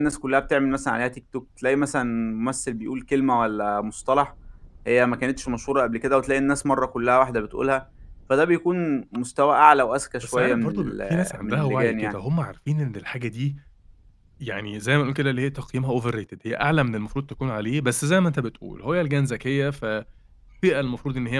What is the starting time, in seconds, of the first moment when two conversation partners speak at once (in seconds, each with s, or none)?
10.2 s